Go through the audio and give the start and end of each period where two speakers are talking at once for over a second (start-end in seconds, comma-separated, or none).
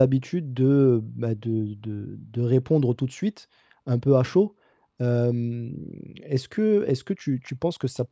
none